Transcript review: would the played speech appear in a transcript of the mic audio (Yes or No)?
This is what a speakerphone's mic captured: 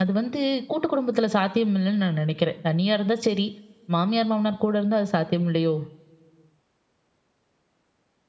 No